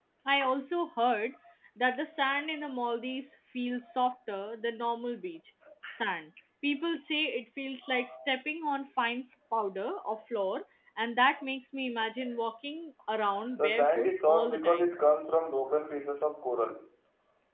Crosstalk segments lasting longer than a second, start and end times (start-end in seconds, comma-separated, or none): 13.6-14.9